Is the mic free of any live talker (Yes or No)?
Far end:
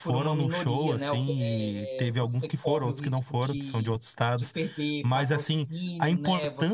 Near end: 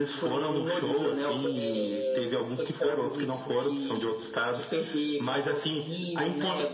Yes